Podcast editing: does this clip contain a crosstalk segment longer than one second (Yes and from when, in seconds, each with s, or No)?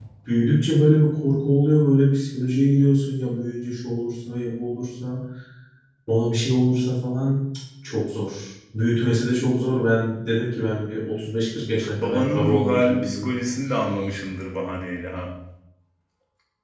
Yes, from 11.8 s